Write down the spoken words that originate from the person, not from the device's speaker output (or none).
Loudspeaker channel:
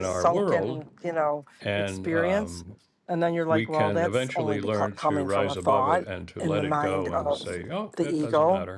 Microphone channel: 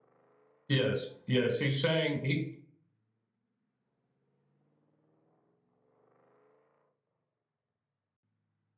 yes yes he's saying he